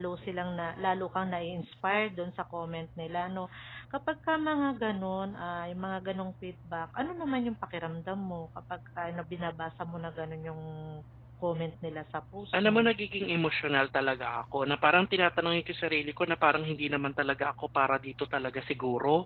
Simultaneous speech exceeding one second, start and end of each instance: none

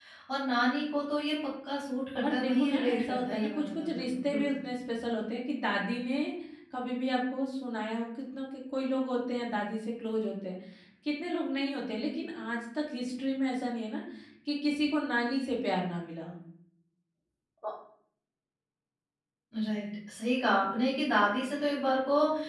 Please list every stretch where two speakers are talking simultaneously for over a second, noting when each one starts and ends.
2.2-4.5

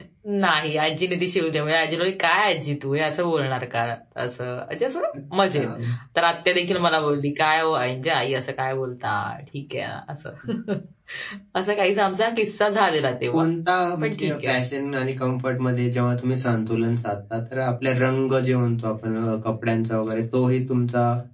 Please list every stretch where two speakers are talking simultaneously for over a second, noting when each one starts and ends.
none

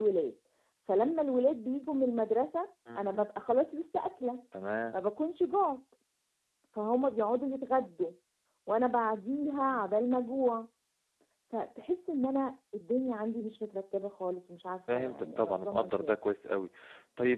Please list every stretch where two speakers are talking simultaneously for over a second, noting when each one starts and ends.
14.9-16.1

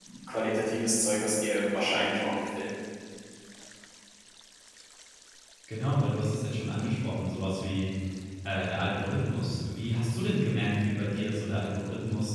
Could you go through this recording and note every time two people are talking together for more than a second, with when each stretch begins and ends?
none

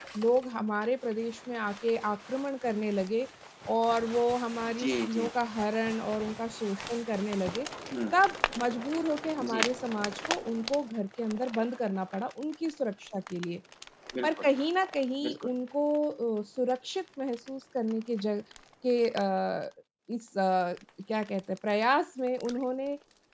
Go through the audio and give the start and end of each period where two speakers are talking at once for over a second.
none

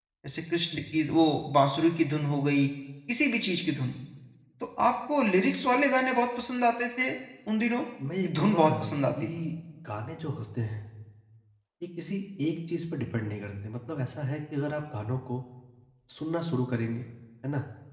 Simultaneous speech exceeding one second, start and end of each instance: 8.2-9.4

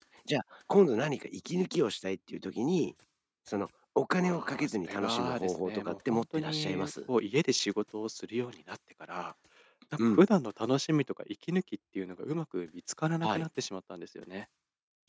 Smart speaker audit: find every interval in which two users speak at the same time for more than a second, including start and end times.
4.2-6.9

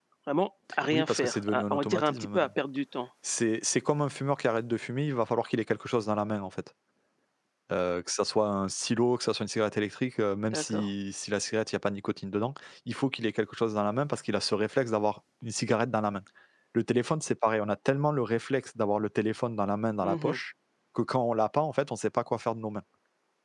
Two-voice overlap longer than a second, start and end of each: 0.9-2.5

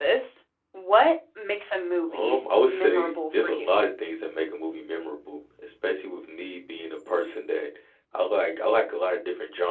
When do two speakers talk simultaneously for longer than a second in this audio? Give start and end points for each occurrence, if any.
2.1-3.7

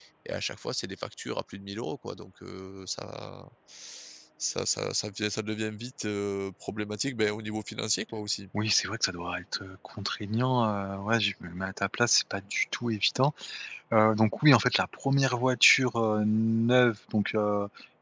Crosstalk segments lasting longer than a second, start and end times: none

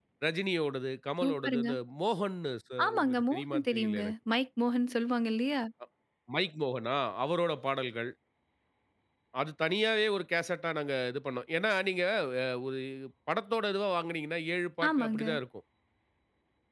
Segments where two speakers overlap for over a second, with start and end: 2.9-4.1

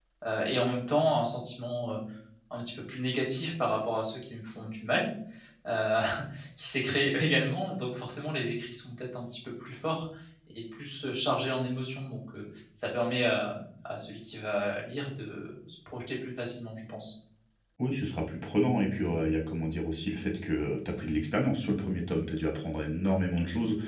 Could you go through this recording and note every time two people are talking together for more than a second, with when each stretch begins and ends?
none

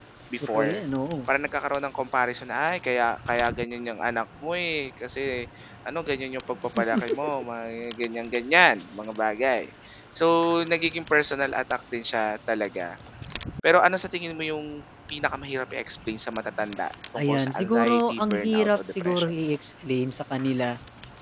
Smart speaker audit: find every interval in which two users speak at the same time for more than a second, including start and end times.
17.2-19.3

